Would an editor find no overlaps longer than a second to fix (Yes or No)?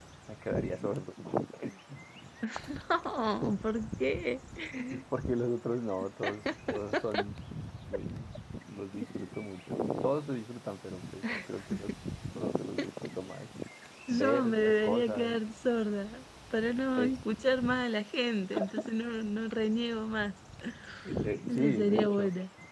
No